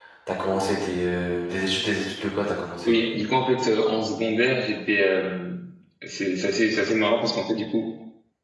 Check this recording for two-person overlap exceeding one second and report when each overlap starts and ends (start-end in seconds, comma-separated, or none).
none